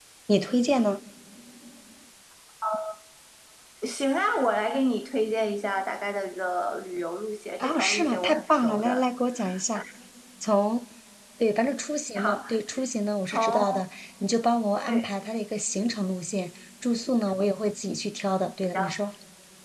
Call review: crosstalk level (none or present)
present